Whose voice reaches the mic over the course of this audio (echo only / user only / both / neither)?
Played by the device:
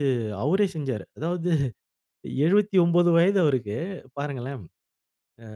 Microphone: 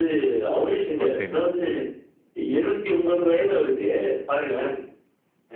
both